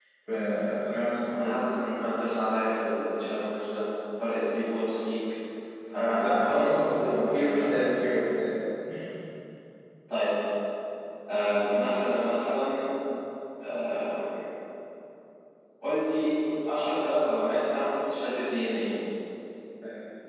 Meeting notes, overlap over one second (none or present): present